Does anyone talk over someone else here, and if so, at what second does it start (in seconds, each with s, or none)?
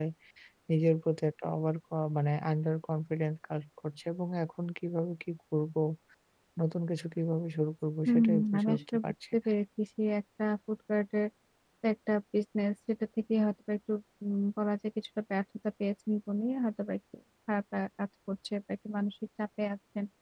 8.1 s